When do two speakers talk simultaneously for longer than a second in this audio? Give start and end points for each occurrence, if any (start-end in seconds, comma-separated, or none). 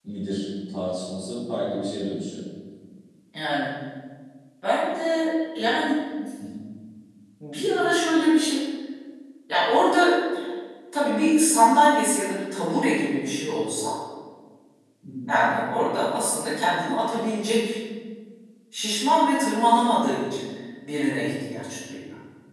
none